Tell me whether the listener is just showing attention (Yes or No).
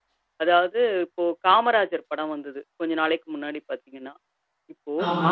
Yes